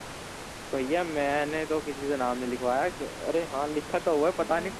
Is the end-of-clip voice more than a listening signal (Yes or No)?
No